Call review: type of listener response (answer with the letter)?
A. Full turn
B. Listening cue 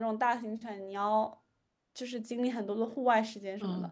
A